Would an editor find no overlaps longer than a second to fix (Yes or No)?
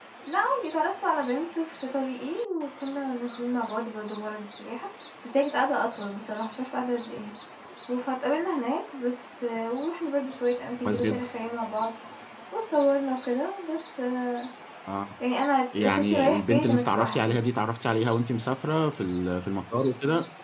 No